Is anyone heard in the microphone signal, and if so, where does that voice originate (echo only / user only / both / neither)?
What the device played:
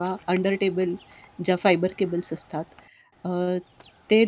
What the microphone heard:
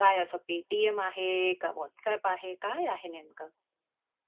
user only